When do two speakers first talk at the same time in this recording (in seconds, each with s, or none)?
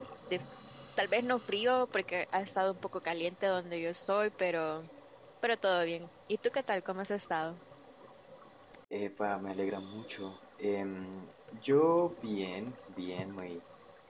none